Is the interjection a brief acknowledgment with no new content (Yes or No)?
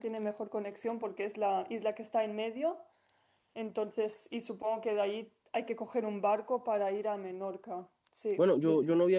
No